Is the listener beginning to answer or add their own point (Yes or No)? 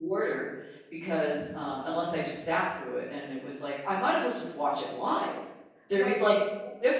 No